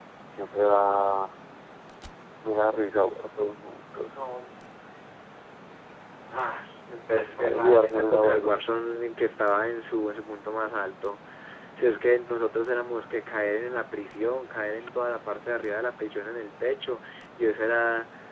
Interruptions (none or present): present